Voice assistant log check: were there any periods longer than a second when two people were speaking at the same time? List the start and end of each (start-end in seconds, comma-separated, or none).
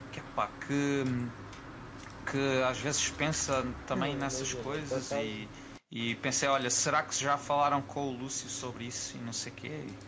3.9-5.5